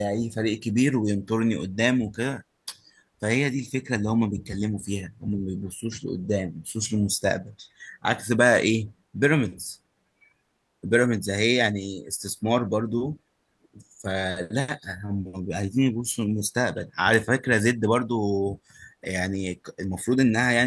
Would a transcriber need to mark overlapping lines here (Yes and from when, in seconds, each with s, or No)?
No